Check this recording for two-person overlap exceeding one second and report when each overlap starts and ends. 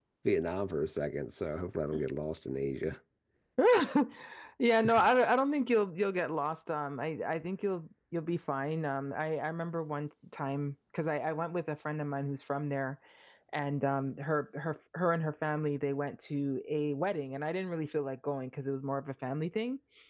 none

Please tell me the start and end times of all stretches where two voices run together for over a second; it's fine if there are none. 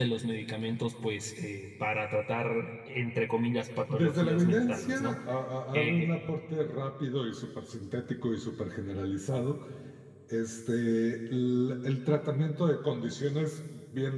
3.9-5.2

